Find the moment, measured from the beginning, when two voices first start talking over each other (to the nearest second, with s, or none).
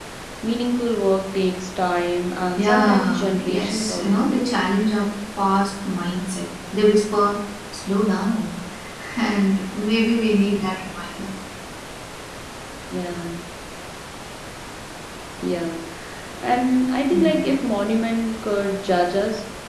3 s